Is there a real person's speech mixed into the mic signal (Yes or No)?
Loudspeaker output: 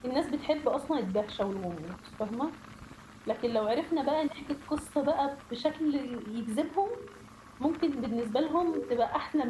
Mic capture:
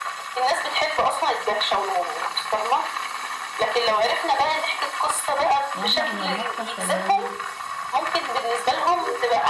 Yes